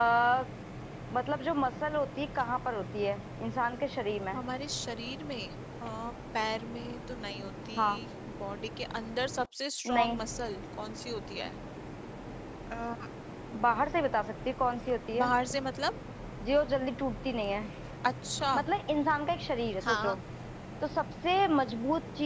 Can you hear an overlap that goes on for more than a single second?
No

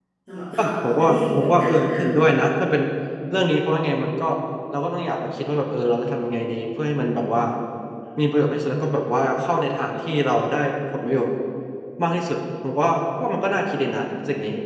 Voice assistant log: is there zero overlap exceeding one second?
No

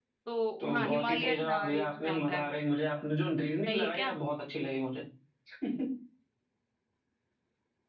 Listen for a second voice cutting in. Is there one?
Yes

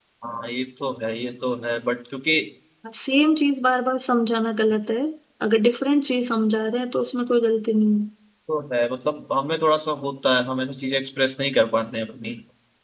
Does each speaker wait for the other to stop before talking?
Yes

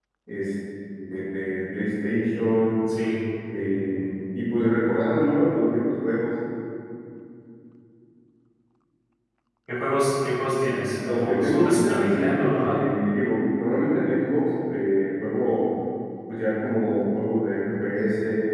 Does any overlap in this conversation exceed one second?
Yes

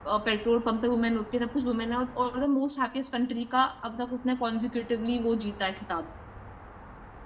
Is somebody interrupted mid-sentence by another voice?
No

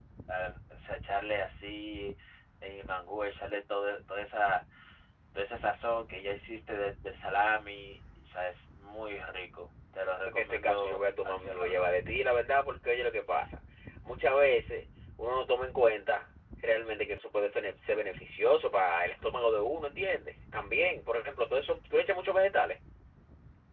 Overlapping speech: Yes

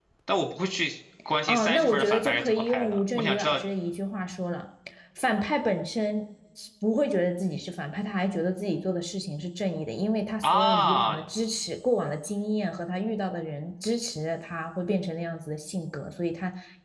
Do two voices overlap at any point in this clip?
Yes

